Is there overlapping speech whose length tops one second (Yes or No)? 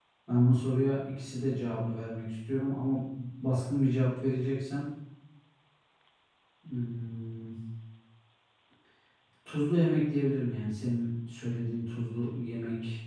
No